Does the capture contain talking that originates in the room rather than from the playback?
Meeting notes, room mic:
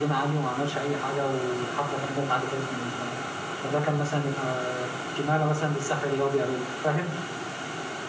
No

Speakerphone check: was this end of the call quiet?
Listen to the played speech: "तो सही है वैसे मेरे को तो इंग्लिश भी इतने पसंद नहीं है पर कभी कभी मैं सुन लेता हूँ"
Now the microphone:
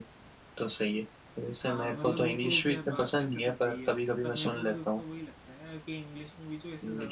No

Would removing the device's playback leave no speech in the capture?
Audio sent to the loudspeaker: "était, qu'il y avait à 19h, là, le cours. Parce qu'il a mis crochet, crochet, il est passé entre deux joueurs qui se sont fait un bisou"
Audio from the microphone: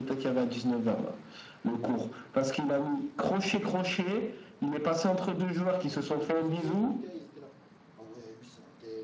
No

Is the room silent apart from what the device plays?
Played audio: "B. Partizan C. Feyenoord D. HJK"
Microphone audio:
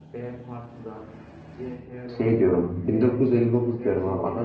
No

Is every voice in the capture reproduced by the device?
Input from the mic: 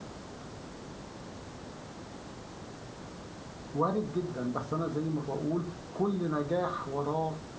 No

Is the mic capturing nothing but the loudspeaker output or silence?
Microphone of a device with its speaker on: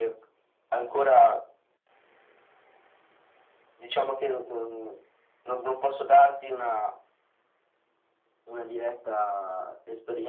Yes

